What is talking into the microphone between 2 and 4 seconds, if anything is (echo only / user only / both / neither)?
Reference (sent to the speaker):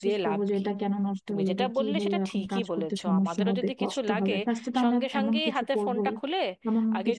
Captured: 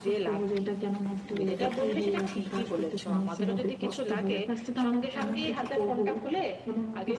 echo only